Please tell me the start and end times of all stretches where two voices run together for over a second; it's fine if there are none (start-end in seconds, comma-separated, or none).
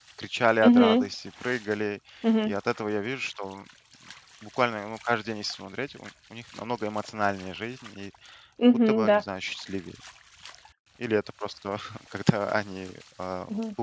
none